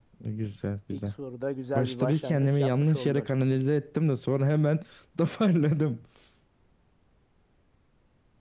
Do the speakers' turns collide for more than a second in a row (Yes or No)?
Yes